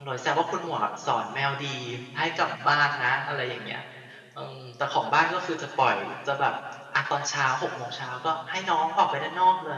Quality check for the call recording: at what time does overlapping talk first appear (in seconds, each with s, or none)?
none